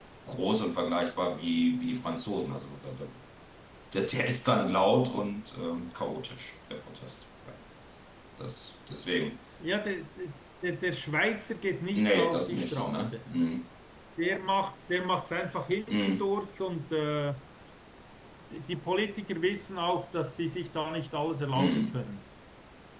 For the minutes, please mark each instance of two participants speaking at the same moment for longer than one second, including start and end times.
11.9-13.2

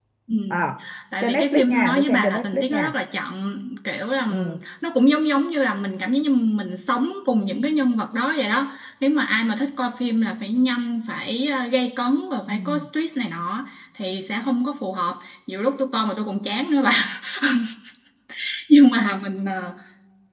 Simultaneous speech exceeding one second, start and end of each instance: 1.2-2.9

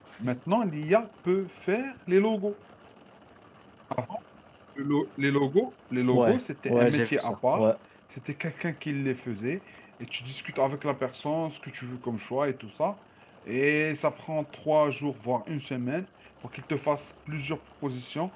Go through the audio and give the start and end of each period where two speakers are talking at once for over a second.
6.1-7.6

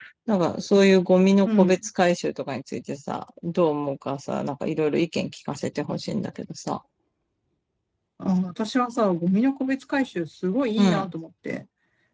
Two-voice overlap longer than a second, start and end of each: none

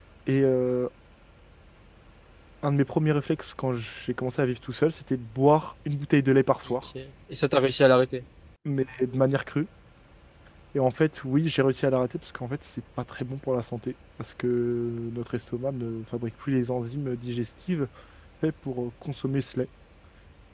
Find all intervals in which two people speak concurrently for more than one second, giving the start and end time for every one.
none

